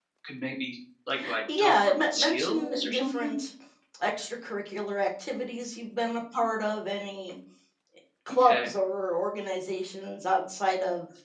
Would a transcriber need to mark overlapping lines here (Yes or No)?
Yes